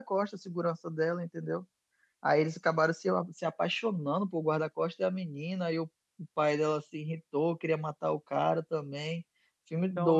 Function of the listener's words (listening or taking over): taking over